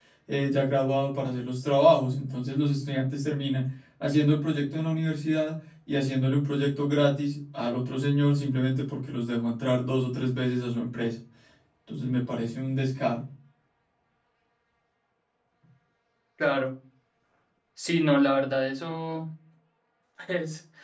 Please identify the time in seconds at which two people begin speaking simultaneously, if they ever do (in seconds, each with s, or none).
none